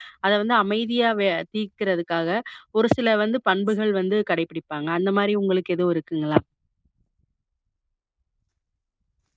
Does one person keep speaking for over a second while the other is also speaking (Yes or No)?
No